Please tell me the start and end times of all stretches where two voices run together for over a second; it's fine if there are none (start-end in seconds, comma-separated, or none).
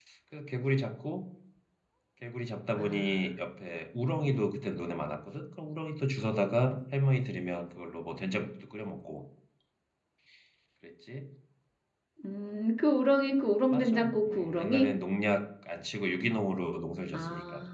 13.7-14.9